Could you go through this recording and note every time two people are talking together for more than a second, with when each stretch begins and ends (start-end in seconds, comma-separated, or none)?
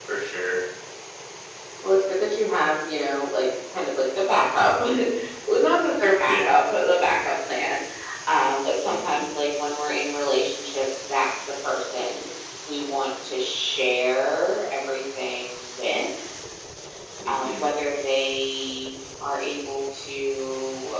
none